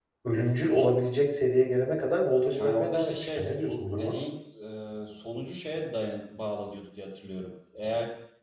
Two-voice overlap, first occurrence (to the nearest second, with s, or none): 3 s